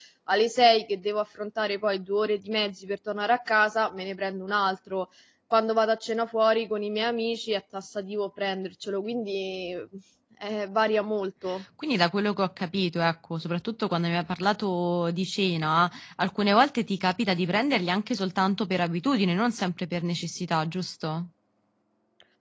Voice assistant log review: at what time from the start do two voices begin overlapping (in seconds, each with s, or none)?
none